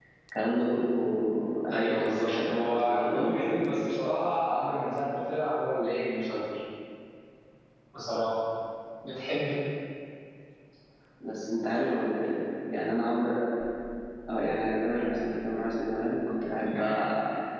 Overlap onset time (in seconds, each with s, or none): 1.7 s